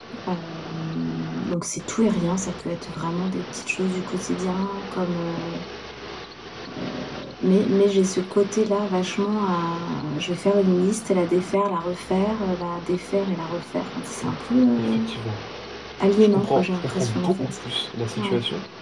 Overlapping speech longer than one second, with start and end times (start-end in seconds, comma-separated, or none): 16.3-17.5